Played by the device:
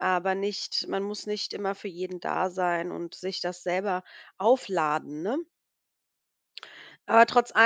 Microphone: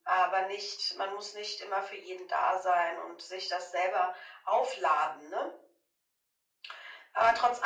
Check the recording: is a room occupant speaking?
No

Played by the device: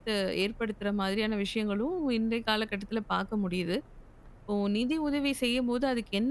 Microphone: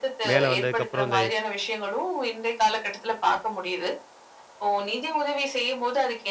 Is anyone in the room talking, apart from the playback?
Yes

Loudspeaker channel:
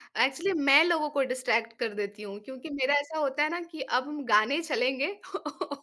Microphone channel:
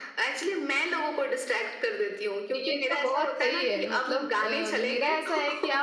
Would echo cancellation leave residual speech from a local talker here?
Yes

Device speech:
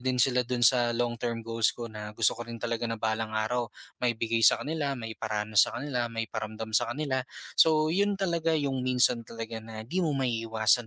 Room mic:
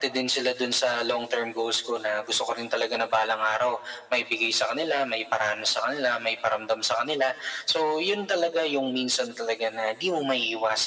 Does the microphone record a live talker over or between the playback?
No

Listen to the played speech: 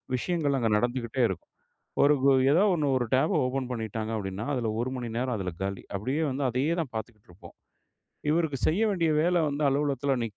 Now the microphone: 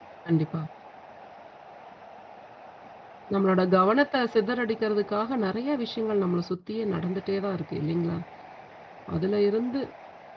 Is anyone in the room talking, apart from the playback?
Yes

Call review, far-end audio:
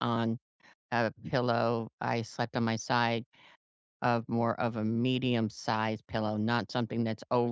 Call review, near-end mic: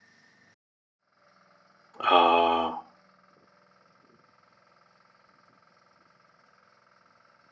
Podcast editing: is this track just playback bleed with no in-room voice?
No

